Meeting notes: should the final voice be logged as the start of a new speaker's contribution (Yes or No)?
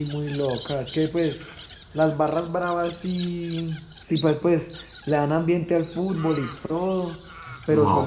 Yes